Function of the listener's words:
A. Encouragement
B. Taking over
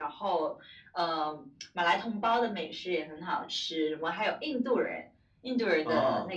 A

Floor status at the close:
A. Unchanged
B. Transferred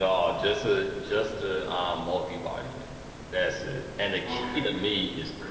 A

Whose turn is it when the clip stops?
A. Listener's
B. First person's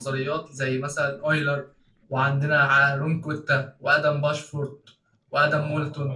A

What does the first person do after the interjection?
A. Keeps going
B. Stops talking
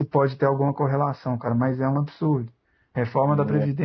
A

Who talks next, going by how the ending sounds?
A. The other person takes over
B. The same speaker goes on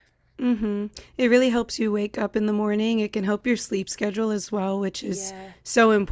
B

